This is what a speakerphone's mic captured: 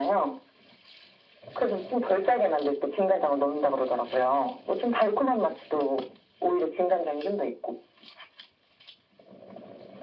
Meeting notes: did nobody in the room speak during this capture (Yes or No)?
Yes